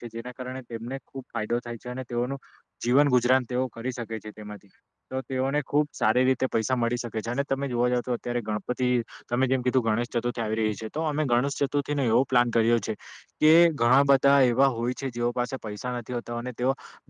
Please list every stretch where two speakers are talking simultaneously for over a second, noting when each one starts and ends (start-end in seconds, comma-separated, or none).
none